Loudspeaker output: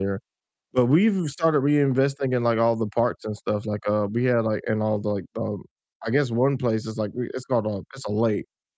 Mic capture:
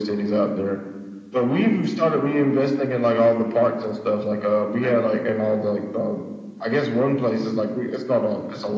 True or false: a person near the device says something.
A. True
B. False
A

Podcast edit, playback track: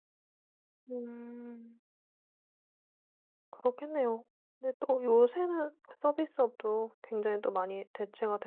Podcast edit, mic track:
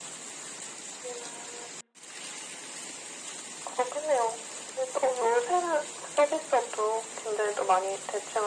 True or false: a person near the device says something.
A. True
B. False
B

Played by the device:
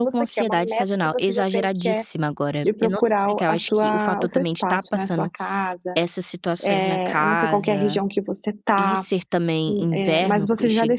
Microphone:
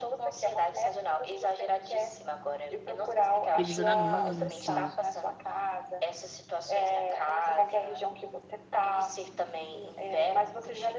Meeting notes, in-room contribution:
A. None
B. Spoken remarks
B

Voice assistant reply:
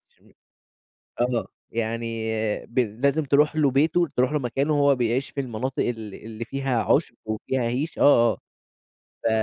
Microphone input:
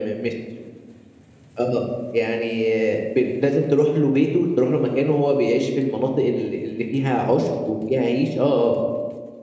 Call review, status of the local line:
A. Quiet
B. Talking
A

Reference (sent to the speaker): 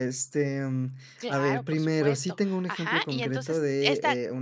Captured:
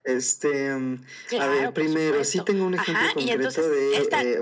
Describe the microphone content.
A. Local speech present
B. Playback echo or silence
B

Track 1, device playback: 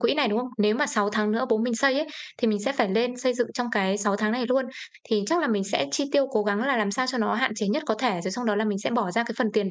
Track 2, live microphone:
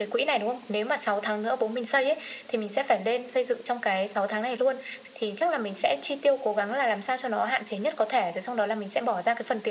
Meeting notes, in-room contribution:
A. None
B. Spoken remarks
A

